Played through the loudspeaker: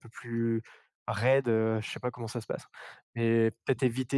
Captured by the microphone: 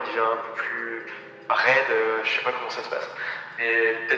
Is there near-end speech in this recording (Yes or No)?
No